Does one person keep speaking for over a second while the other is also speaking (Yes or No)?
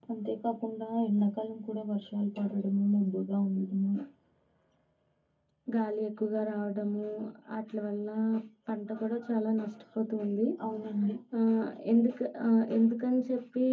No